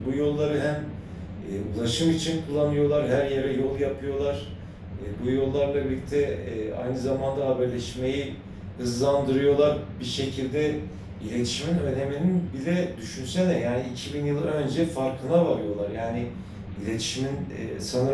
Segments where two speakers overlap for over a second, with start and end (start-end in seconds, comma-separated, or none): none